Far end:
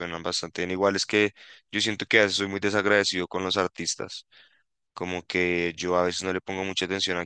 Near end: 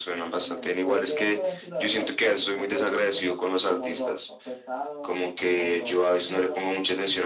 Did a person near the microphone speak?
Yes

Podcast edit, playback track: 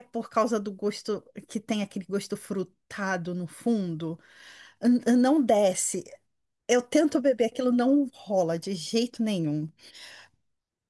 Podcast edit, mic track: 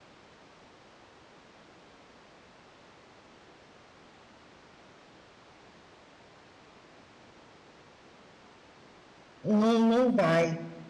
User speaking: Yes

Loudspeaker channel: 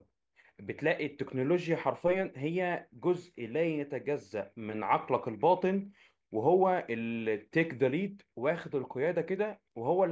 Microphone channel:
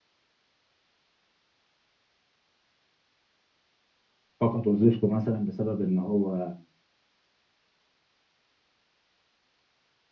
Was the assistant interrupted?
Yes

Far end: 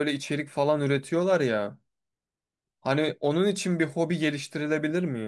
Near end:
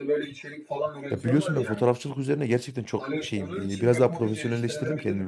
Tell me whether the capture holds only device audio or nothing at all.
No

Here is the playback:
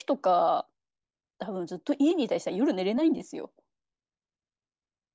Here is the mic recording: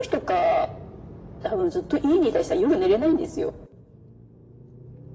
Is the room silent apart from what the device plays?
Yes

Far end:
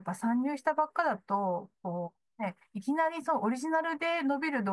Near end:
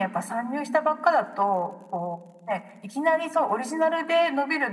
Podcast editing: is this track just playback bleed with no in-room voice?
Yes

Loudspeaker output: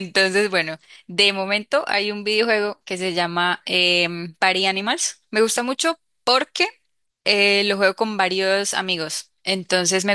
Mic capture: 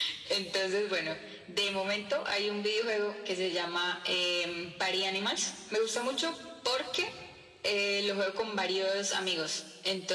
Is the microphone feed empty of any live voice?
Yes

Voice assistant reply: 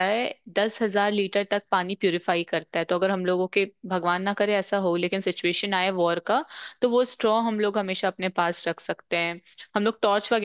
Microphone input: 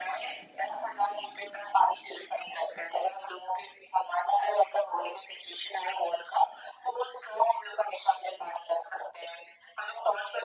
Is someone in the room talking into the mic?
No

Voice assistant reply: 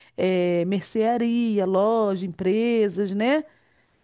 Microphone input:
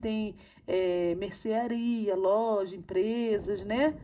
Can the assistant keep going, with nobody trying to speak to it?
Yes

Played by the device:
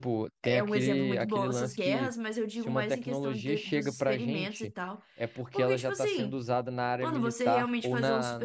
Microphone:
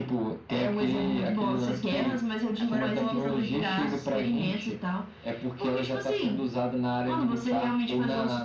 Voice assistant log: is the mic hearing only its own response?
No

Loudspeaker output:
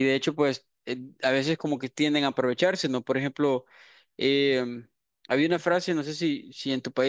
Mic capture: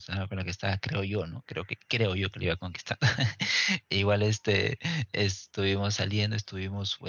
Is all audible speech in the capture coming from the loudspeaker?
No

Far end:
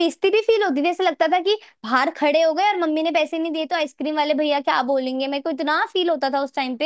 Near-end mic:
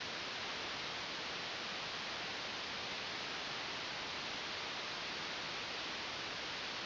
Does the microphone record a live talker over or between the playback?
No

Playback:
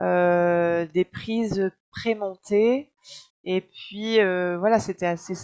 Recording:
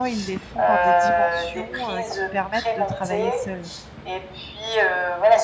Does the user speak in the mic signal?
Yes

